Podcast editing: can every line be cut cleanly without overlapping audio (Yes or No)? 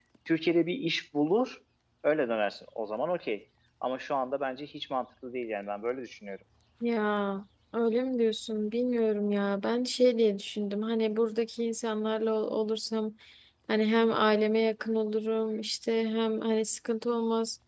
Yes